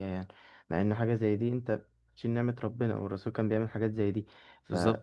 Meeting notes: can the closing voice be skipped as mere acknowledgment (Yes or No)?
Yes